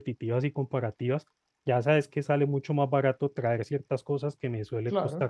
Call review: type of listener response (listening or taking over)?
listening